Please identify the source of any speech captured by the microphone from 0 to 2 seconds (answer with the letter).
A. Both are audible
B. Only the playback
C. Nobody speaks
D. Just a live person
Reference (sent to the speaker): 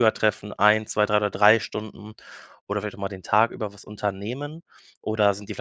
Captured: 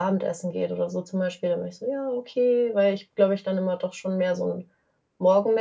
D